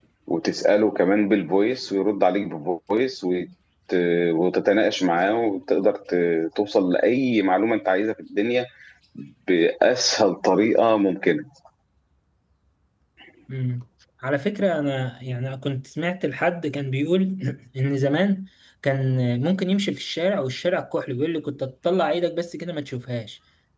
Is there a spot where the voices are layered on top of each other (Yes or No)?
No